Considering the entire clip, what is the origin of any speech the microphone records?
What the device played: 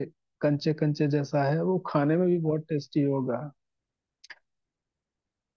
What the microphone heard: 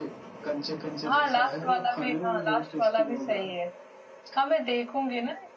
both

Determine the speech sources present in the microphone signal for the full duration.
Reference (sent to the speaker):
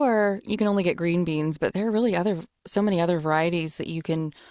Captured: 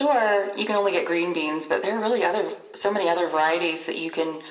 echo only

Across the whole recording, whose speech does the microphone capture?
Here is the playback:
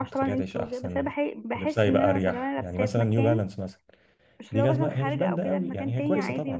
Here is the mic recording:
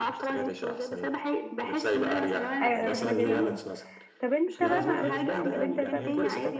both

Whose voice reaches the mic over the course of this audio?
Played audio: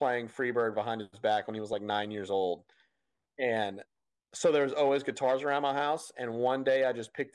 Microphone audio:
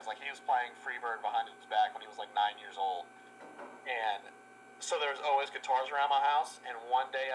echo only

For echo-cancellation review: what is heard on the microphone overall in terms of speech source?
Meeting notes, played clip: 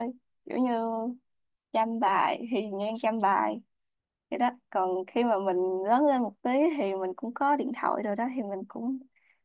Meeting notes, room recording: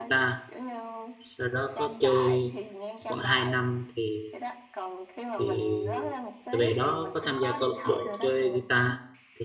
both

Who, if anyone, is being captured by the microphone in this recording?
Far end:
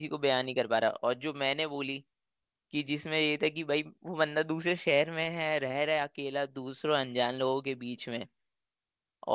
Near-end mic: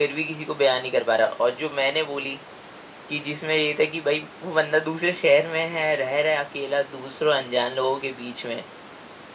echo only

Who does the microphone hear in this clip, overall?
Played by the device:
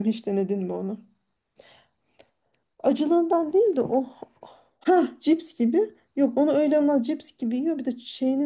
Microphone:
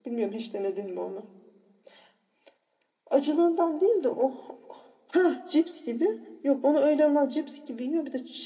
echo only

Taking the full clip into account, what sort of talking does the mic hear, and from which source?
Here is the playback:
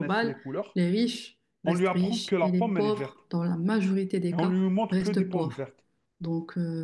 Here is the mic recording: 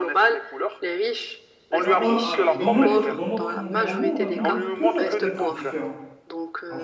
both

